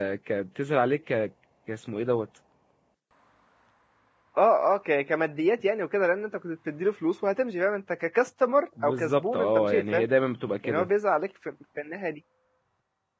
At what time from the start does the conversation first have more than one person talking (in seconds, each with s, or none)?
8.8 s